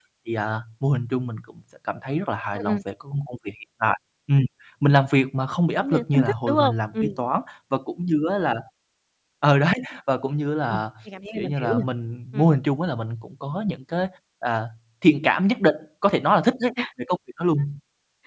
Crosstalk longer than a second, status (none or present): present